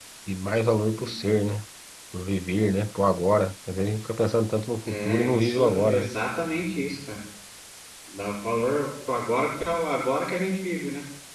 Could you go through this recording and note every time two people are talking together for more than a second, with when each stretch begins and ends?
4.9-6.1

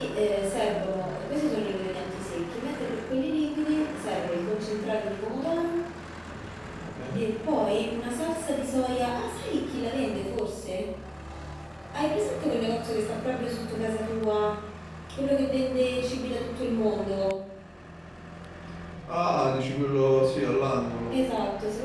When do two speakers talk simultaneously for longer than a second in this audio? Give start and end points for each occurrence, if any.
none

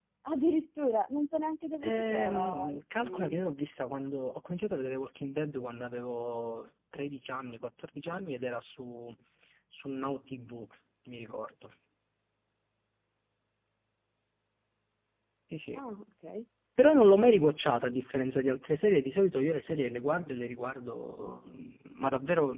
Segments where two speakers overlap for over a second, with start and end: 1.8-3.5

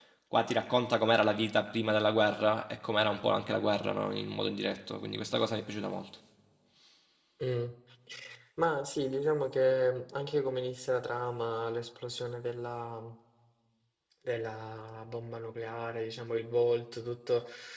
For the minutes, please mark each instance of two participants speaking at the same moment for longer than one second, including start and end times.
none

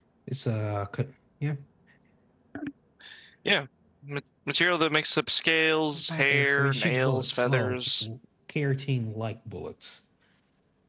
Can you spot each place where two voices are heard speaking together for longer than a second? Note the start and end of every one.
6.1-7.8

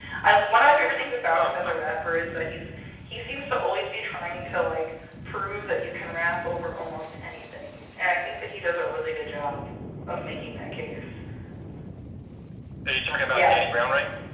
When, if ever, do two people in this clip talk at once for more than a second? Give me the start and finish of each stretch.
none

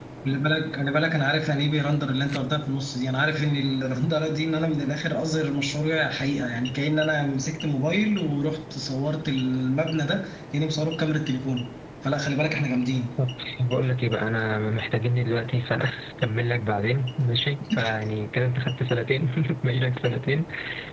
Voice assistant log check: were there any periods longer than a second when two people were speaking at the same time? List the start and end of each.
none

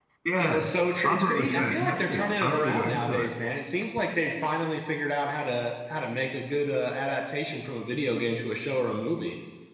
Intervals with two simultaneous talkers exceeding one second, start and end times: 1.0-3.3

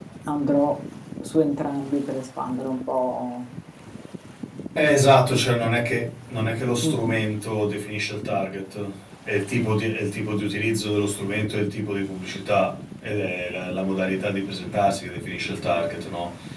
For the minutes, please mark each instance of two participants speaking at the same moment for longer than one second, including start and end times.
none

